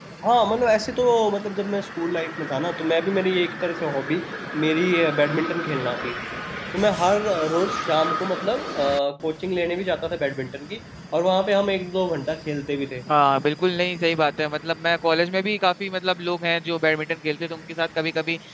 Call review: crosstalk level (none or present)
none